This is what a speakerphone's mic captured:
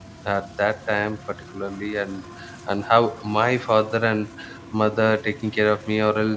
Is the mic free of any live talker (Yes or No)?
No